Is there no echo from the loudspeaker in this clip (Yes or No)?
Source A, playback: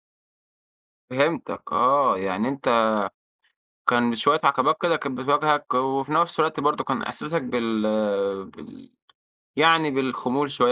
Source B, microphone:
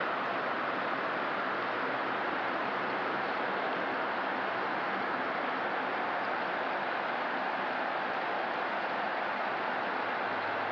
Yes